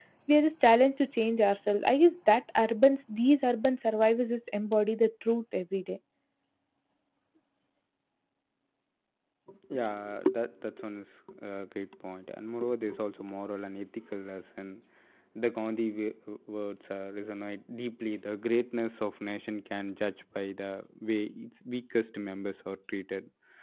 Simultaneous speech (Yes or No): No